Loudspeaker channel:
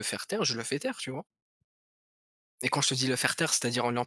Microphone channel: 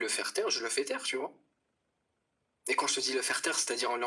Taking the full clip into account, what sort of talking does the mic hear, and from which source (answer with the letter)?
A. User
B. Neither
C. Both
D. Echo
D